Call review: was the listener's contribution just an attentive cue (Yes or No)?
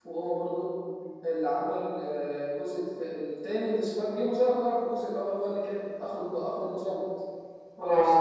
No